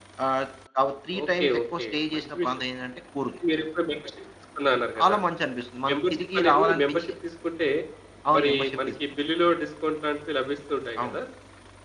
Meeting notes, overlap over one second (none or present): present